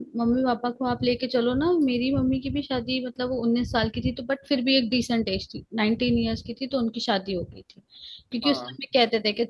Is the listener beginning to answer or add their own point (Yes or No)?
No